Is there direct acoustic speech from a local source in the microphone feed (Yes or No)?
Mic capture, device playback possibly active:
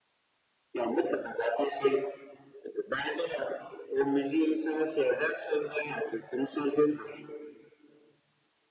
No